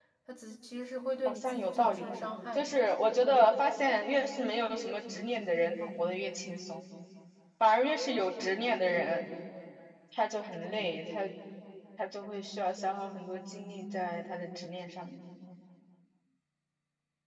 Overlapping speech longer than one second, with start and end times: 1.2-2.8

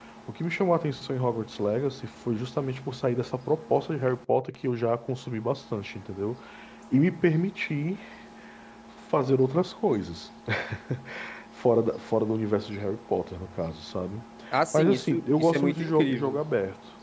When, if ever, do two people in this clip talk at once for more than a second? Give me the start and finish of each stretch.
14.7-16.4

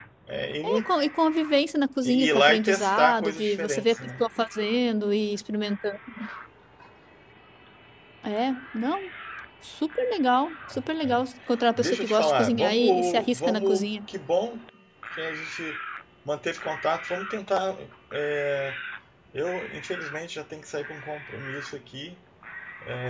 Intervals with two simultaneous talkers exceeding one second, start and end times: 2.0-4.2, 11.8-13.8

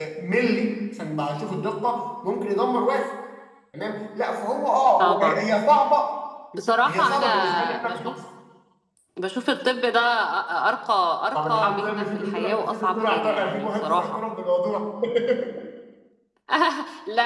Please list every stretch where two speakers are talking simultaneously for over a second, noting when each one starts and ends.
6.8-8.1, 11.3-14.0

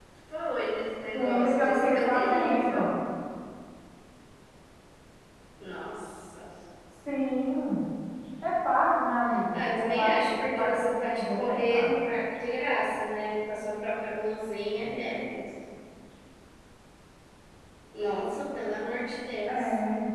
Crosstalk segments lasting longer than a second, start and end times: 1.1-2.9, 9.5-11.9

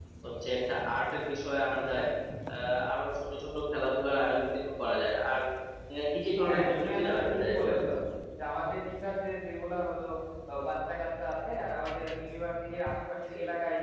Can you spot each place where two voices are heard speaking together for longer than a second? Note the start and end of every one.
6.4-7.8

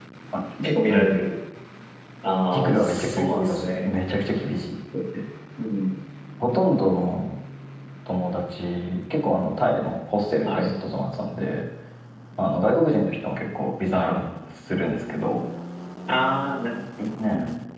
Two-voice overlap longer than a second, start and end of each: 2.5-3.9

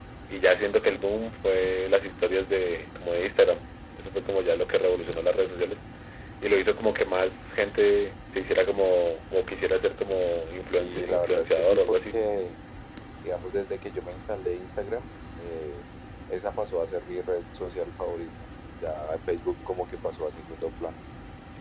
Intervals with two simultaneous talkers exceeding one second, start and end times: 10.8-12.2

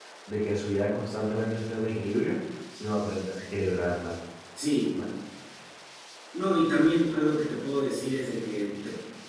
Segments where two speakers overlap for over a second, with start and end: none

